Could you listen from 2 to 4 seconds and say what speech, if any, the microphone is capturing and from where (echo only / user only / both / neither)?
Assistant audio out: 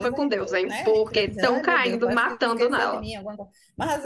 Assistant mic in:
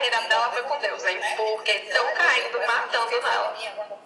echo only